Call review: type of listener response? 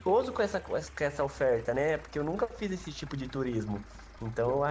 listening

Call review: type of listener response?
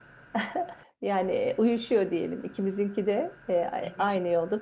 listening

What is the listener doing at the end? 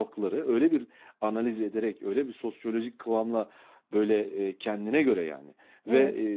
listening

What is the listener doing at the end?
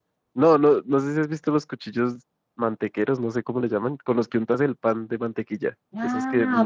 taking over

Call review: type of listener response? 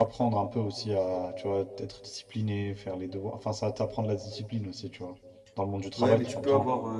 taking over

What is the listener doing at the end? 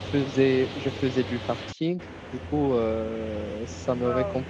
listening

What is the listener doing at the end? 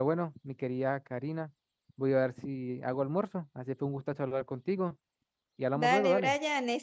taking over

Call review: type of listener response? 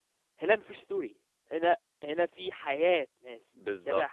taking over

